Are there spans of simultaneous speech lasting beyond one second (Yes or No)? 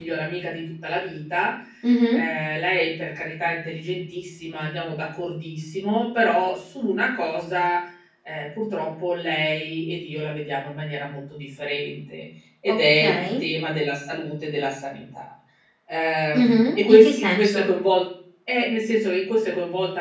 Yes